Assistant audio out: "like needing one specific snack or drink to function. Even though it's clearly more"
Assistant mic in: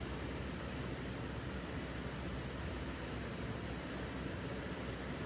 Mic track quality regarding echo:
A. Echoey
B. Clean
B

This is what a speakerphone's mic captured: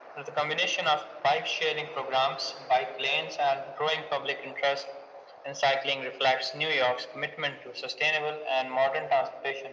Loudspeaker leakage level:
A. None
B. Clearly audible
B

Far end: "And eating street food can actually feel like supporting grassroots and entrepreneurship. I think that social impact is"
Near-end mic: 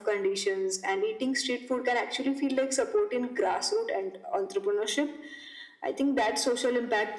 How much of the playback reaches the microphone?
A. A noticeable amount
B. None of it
A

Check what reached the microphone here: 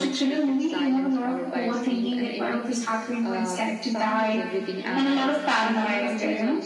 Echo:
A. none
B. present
B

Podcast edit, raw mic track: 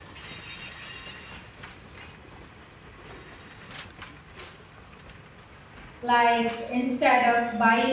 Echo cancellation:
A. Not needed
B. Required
A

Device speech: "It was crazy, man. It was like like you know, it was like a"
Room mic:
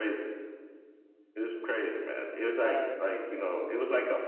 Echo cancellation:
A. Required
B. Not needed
A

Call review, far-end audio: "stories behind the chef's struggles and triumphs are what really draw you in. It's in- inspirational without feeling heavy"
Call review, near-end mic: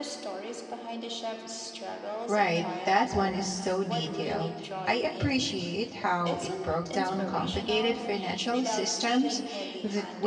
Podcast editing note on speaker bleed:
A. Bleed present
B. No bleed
A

